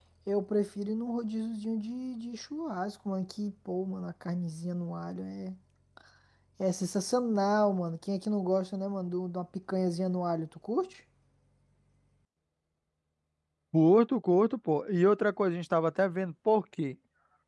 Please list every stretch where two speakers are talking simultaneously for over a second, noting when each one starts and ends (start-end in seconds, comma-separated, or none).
none